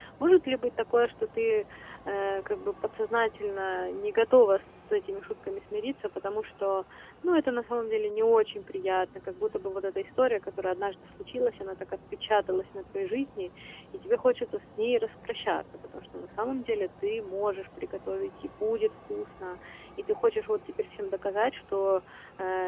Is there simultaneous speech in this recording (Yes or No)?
No